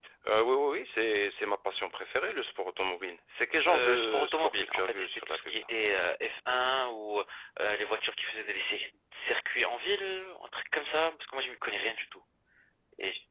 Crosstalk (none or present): present